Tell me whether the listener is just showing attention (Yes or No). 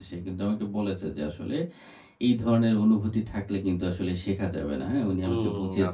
No